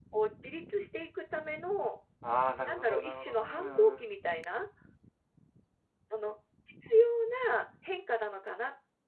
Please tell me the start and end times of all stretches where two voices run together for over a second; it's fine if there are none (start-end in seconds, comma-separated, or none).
2.7-4.1